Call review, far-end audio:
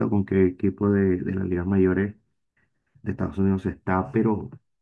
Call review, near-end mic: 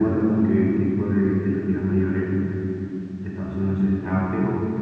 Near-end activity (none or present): none